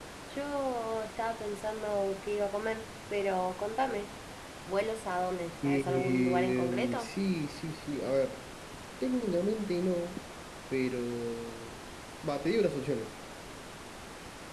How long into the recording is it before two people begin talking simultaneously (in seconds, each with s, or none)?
5.6 s